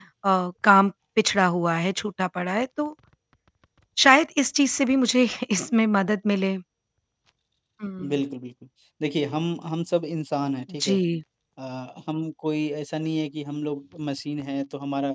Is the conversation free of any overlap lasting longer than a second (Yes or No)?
Yes